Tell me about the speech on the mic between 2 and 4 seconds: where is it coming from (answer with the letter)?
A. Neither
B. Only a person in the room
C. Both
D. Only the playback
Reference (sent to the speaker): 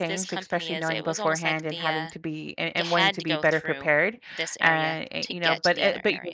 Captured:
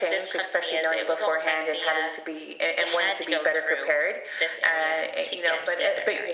D